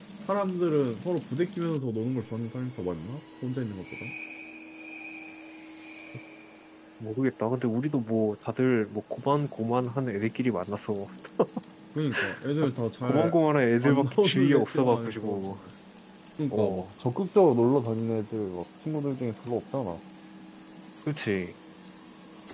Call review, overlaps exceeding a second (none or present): present